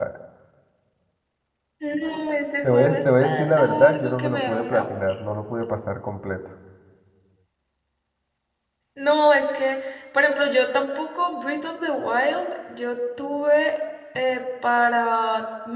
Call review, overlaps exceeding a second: present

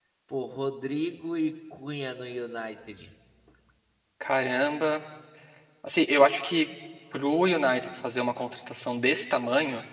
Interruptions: none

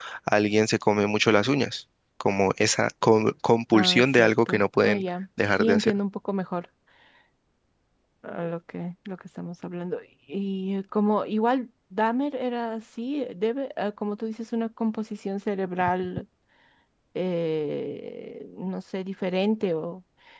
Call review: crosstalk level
present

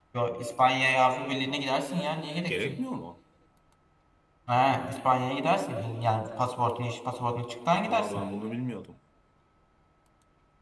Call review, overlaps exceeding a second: none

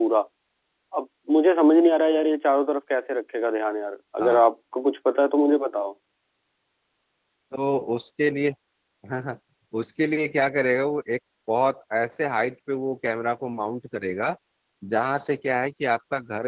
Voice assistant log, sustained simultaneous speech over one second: none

